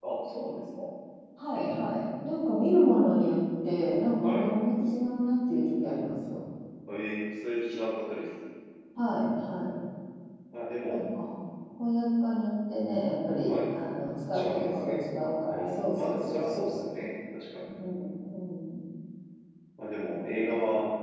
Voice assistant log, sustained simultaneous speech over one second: present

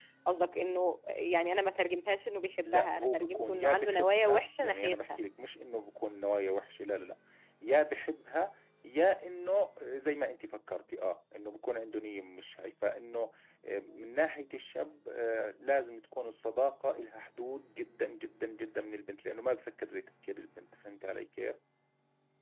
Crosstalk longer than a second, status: present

